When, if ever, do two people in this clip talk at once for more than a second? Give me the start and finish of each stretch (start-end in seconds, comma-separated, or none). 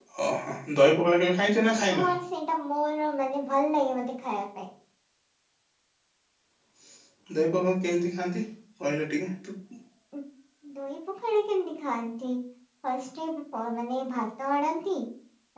none